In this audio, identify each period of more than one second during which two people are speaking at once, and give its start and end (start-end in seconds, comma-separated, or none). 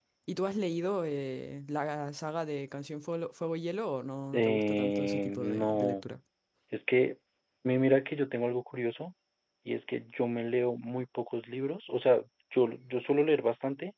4.3-6.0